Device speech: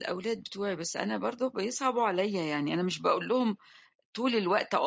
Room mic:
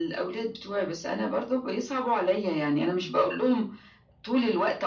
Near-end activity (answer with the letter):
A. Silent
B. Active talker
A